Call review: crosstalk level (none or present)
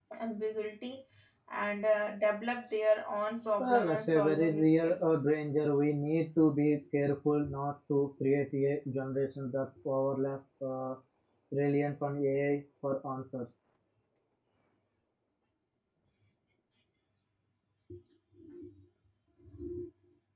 present